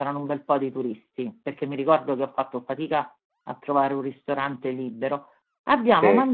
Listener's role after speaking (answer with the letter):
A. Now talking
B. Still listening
B